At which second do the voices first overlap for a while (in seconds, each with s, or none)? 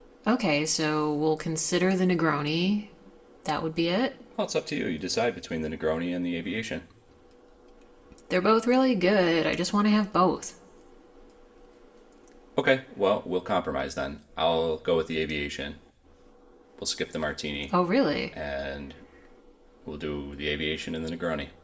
none